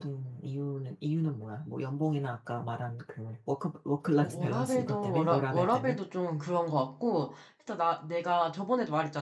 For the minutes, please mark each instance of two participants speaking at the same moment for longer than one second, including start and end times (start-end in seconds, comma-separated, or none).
4.2-6.0